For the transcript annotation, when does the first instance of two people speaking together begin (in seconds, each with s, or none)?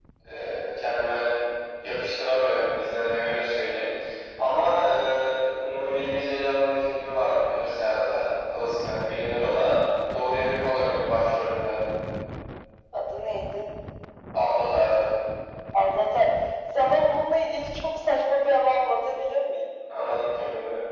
none